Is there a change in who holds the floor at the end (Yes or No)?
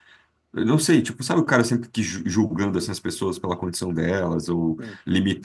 No